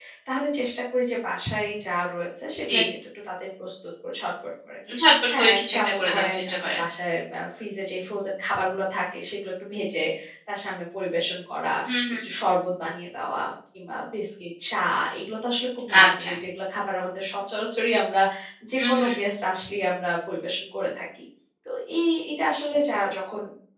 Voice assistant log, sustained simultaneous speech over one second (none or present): present